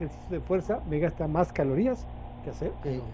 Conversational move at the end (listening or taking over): taking over